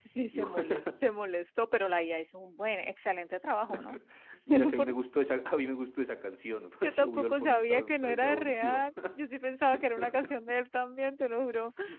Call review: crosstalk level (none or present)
present